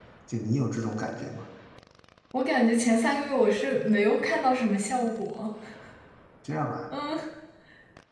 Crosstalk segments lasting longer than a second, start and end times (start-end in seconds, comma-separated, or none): none